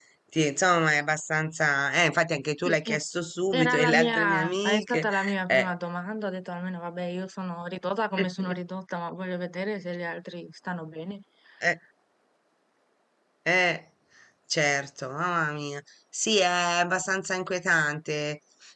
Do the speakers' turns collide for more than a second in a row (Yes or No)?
Yes